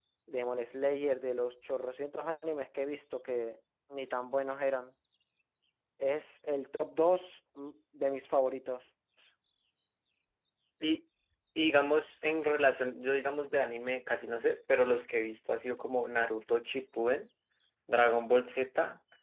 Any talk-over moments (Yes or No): No